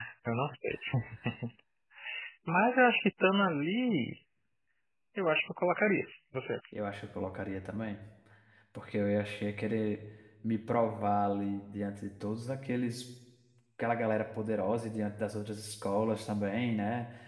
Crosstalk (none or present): none